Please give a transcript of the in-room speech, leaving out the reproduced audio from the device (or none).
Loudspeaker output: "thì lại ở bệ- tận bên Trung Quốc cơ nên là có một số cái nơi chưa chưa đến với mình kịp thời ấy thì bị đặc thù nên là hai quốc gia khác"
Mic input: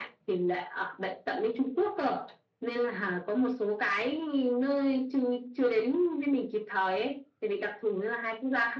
none